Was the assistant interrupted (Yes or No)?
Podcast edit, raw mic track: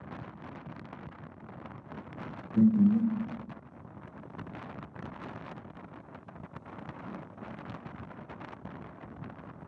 Yes